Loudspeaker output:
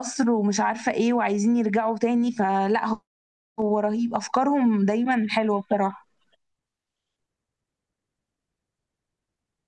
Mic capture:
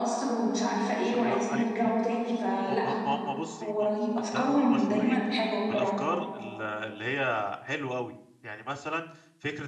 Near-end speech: present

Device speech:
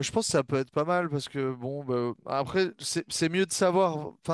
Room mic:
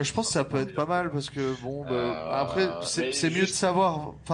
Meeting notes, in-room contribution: present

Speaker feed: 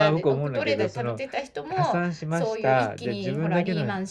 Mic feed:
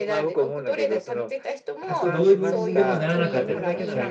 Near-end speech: present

